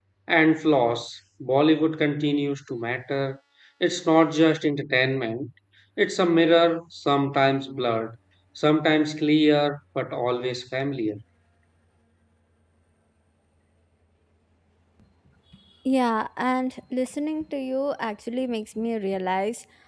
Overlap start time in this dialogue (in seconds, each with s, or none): none